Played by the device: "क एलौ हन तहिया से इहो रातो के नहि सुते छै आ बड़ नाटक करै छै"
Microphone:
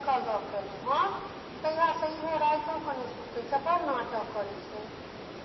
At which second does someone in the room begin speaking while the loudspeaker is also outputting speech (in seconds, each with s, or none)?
none